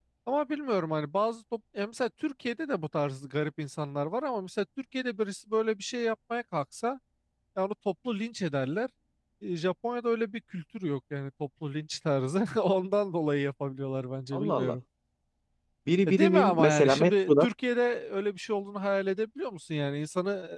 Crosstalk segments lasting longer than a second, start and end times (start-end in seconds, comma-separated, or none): 16.1-17.5